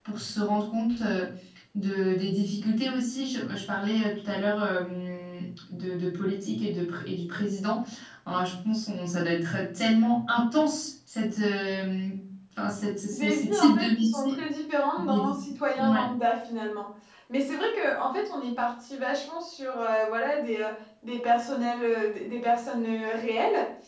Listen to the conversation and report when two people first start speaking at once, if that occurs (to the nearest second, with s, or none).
13 s